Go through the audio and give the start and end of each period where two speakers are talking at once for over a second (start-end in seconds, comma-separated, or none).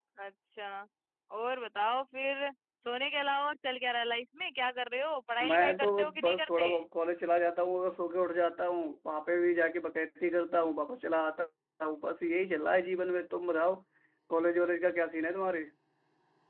5.5-6.7